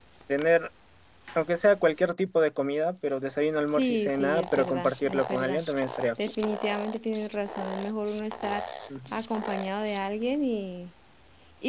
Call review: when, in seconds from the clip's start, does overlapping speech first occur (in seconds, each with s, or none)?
3.7 s